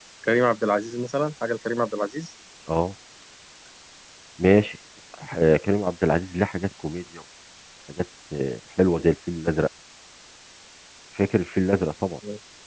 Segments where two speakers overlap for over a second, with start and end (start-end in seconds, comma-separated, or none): none